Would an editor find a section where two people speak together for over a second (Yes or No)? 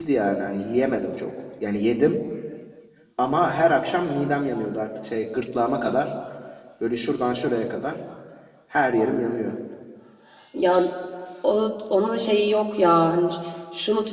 No